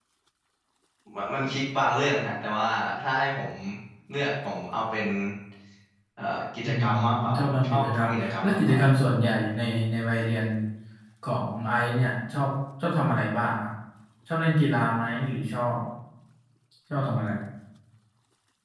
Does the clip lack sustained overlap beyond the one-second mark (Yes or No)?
No